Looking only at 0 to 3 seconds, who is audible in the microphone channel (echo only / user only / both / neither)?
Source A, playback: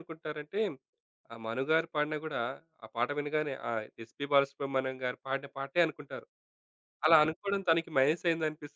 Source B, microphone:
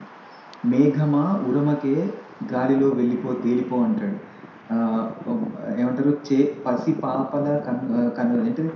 user only